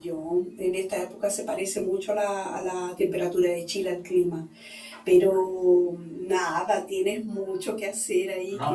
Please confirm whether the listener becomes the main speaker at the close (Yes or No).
Yes